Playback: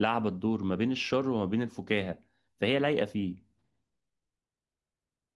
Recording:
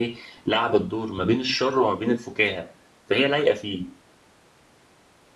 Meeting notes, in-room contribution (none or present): none